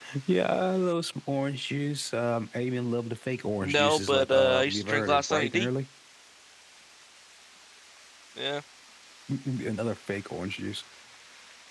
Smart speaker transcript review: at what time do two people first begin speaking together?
3.6 s

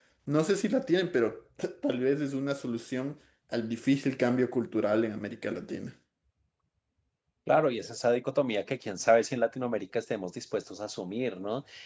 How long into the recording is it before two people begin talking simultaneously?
none

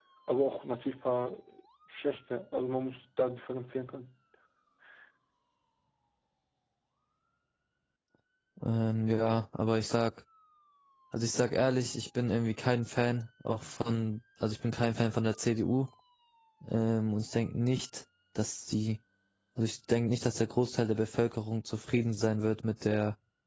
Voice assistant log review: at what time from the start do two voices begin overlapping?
none

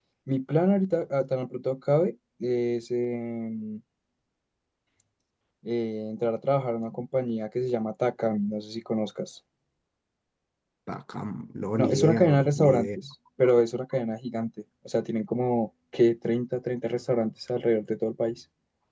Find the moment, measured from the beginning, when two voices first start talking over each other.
11.8 s

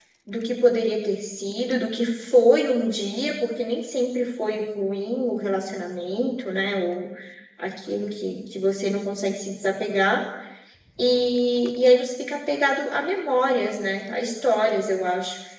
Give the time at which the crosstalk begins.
none

